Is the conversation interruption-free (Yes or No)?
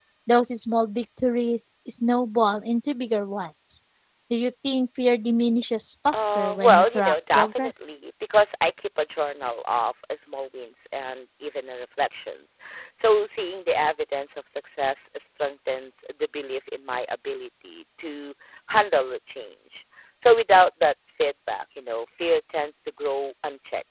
No